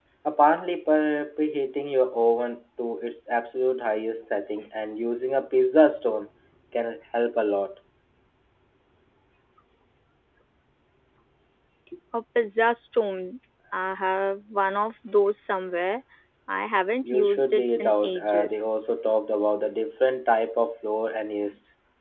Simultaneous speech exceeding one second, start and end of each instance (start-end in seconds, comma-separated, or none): 17.0-18.7